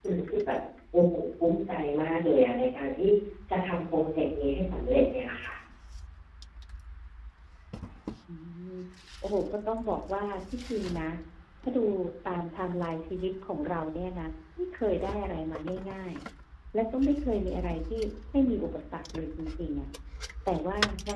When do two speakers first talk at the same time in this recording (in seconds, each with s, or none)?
none